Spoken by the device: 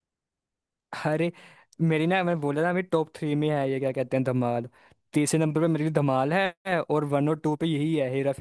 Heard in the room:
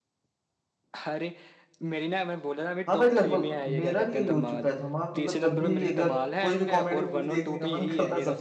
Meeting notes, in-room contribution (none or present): present